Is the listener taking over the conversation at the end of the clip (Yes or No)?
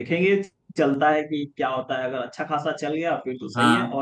No